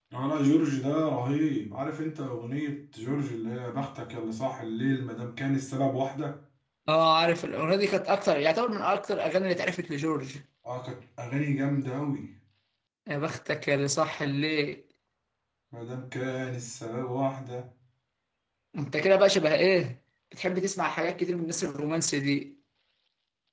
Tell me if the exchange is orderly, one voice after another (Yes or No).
Yes